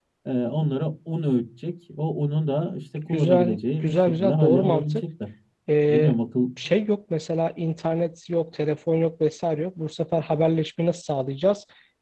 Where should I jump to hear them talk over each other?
3.1 s

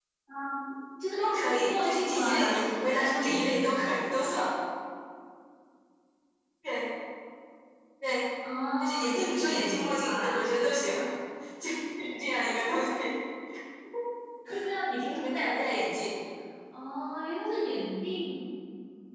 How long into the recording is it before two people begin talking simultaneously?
1.6 s

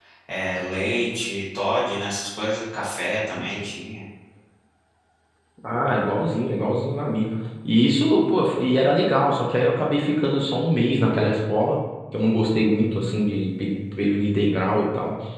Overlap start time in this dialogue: none

